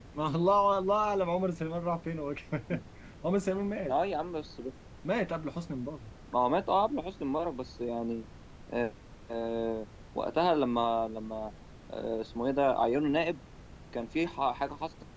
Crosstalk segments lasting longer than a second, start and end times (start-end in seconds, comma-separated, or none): none